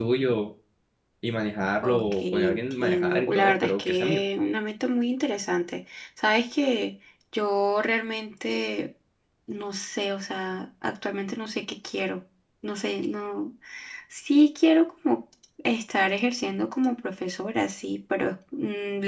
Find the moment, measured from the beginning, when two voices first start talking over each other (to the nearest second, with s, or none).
2 s